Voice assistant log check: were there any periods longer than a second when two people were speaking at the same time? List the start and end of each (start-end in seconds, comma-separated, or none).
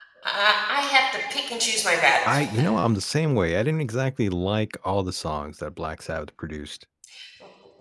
none